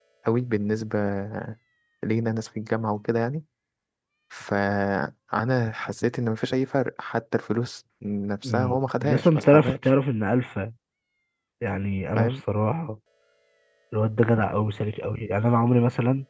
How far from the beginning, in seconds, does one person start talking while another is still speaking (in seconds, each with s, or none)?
8.4 s